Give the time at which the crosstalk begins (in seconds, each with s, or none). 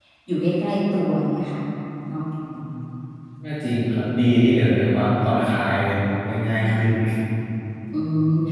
none